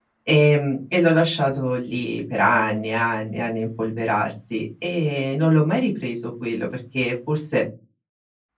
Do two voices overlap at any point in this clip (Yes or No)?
No